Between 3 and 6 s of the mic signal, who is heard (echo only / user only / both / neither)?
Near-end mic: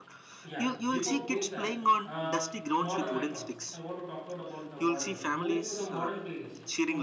both